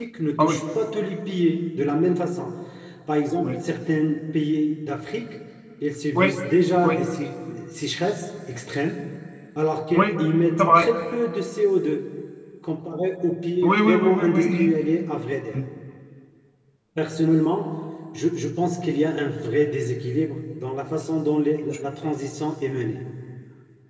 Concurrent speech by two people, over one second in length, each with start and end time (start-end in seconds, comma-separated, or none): 13.6-14.8